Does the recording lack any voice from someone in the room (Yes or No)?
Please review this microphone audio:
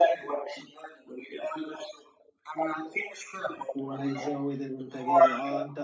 No